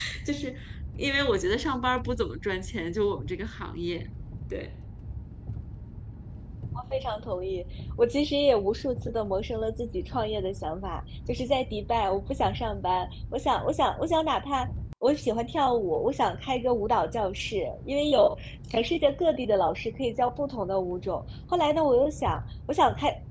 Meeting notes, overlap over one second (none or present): none